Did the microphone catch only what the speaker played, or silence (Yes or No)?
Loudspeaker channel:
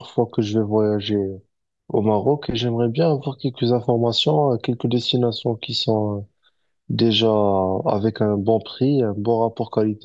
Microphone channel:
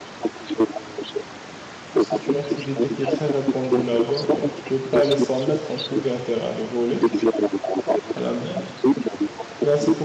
No